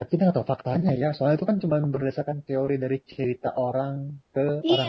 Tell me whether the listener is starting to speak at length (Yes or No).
Yes